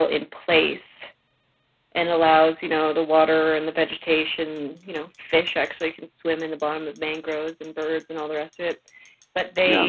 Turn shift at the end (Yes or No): No